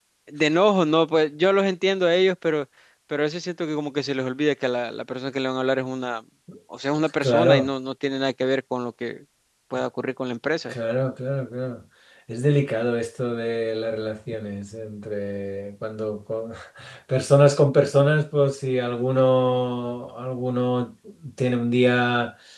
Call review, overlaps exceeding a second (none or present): none